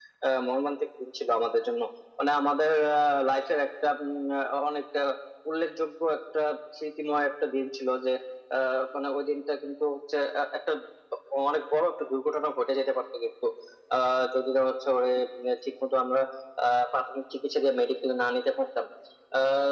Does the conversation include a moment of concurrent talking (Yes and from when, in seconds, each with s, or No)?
No